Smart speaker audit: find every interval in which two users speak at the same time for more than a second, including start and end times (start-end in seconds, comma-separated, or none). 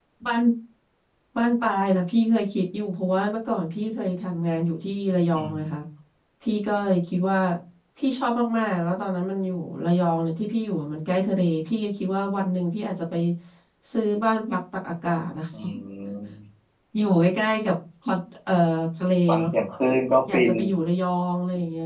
none